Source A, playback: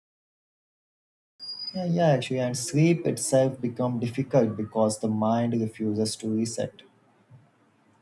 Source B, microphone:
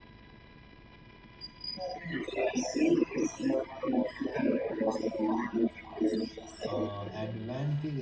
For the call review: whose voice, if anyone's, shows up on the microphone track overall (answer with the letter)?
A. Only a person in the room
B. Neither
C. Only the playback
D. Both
D